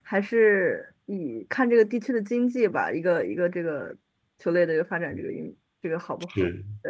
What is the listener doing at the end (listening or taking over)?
taking over